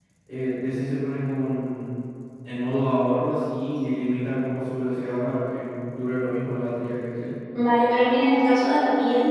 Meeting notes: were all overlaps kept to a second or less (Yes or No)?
Yes